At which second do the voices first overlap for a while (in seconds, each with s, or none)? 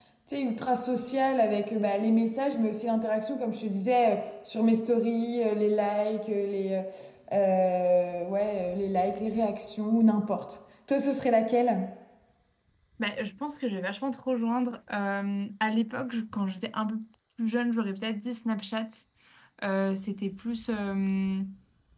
none